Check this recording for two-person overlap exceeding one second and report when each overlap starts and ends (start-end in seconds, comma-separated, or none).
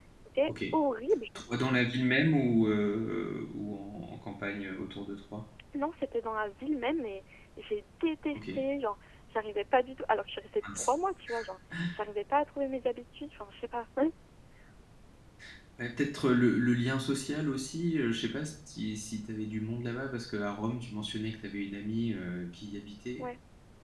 none